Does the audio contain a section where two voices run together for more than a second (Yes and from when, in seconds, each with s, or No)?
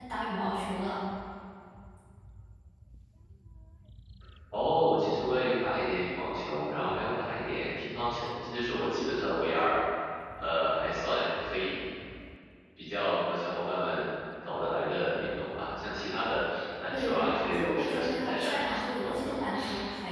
Yes, from 16.9 s